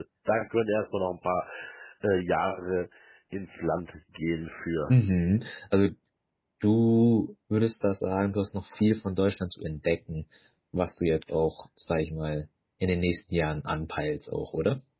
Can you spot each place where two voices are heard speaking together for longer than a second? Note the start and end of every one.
none

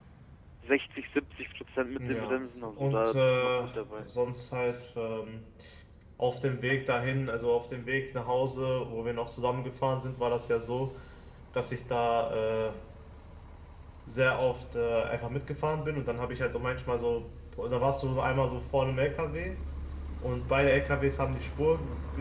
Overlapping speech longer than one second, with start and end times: 2.0-4.0

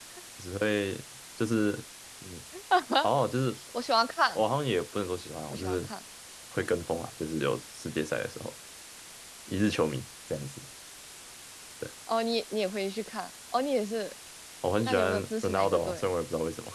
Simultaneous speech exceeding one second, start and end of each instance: 14.8-16.1

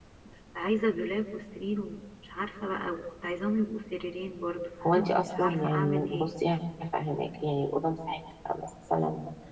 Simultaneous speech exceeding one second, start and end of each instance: 4.8-6.3

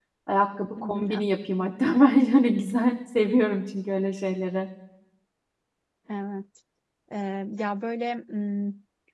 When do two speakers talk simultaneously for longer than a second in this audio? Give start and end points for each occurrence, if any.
none

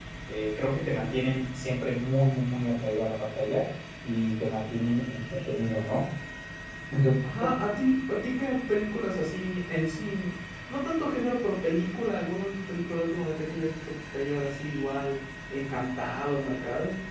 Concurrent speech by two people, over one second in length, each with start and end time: none

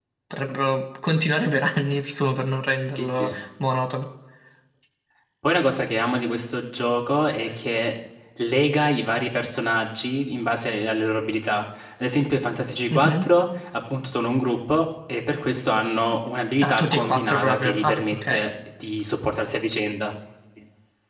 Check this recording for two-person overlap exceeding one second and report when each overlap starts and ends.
16.6-18.4

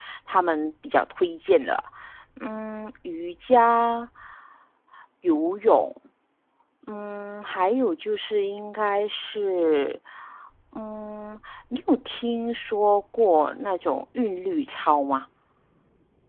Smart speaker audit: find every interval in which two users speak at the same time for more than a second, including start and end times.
none

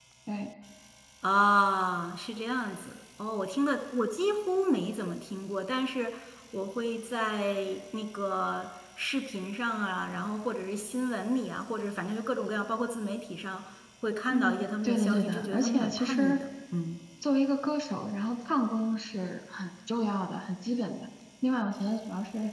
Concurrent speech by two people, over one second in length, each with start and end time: 14.3-16.4

